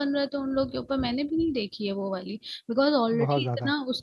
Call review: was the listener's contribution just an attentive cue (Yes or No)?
Yes